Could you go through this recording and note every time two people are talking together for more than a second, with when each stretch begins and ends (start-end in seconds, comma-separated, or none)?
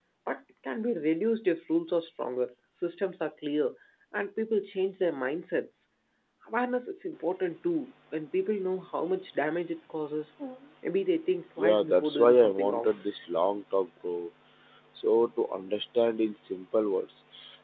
11.6-12.9